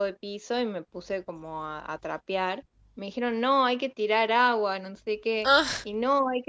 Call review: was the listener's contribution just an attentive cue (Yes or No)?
Yes